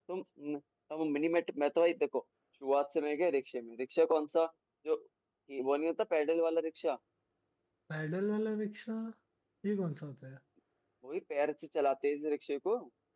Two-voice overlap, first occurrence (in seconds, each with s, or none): none